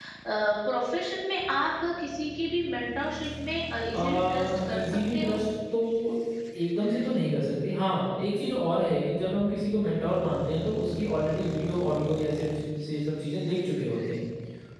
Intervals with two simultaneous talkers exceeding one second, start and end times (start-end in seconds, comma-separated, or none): 3.9-5.4